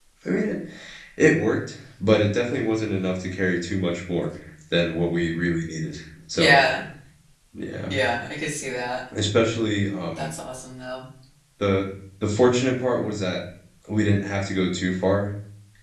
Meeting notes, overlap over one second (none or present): none